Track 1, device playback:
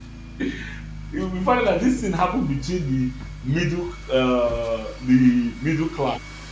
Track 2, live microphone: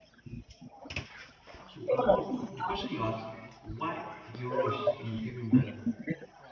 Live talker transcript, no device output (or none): So I'm all the question you ask: Why the rush in giving birth?